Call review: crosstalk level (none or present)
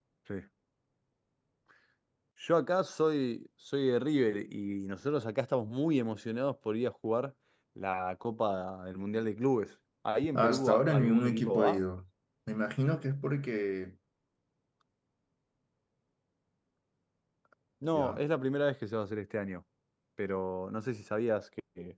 present